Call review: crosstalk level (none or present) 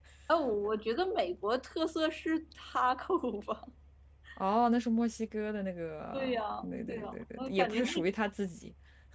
present